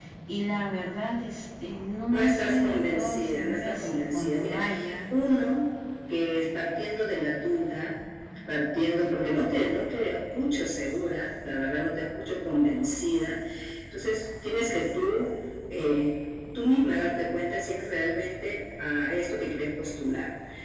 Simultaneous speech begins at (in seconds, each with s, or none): 2.1 s